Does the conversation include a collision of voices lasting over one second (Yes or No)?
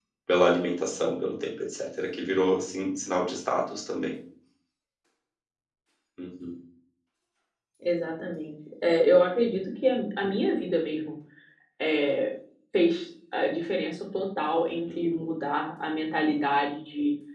No